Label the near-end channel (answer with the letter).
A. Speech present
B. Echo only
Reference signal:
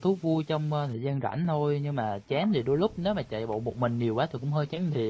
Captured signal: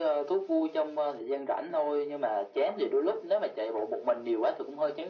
B